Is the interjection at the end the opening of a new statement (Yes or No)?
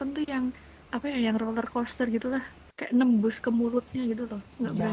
Yes